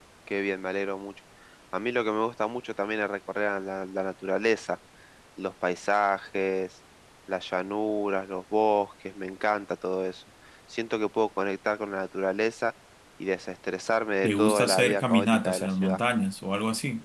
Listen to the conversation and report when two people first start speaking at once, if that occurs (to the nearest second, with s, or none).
14 s